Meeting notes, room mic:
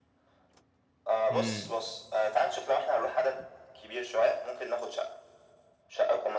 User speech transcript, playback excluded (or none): امم